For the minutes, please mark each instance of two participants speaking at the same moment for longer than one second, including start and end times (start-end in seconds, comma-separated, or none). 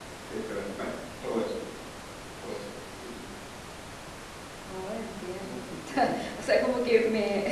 none